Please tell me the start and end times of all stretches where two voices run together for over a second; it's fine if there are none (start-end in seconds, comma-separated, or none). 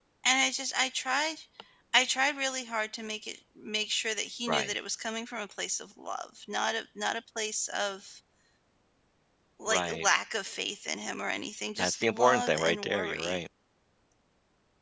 11.8-13.4